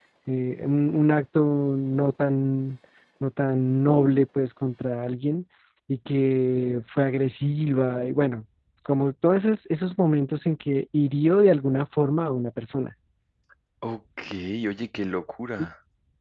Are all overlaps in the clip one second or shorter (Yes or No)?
Yes